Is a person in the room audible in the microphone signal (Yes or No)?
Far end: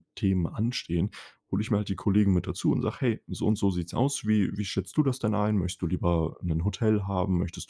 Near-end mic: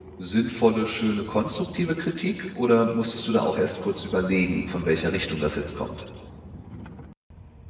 Yes